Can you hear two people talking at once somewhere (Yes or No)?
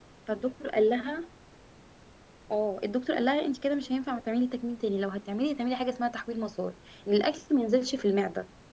No